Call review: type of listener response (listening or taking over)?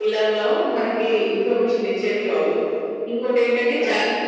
listening